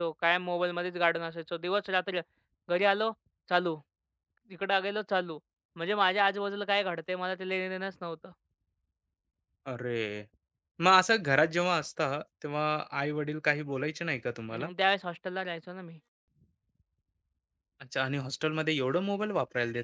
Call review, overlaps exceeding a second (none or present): none